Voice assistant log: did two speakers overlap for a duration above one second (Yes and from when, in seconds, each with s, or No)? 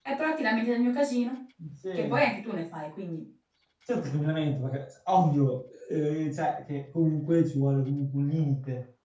No